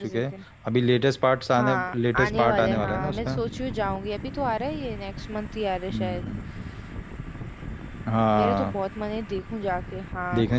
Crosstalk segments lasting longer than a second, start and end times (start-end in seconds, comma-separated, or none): 1.6-3.4